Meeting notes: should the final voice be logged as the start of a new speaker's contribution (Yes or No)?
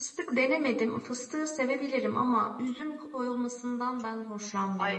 Yes